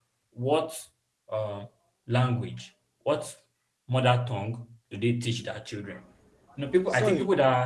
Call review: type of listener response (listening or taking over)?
taking over